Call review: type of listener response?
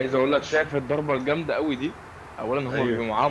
listening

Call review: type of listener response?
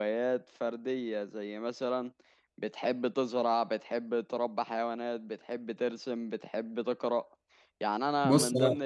listening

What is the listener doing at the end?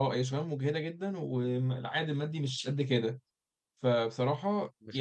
taking over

